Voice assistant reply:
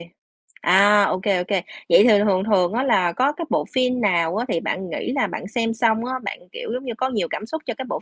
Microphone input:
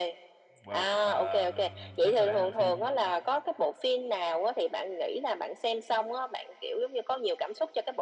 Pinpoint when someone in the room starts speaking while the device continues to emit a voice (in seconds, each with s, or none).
0.6 s